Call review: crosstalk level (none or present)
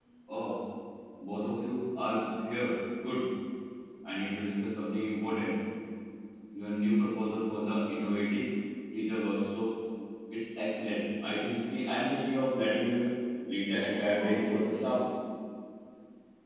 present